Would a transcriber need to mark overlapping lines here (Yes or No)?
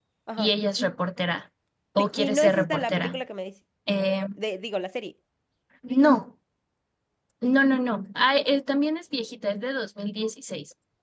Yes